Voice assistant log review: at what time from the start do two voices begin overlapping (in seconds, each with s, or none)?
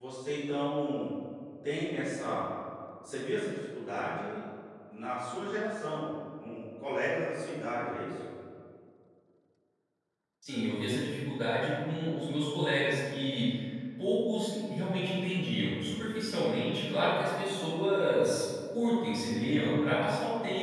none